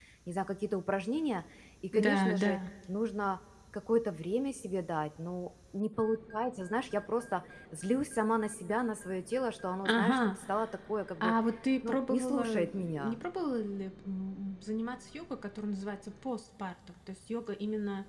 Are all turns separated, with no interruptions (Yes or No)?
No